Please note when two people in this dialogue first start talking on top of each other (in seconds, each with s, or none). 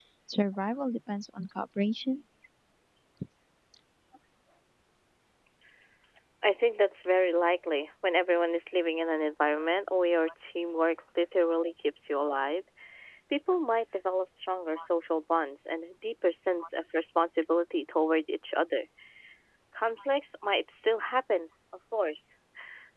none